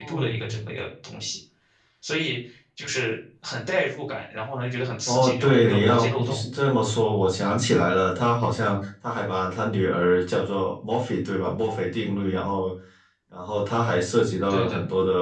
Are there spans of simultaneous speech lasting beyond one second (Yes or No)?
Yes